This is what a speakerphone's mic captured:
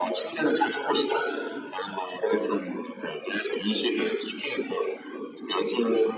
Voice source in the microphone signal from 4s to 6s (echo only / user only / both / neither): echo only